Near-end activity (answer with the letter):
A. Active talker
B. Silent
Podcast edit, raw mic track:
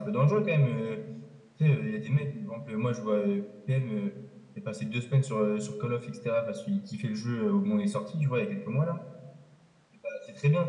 B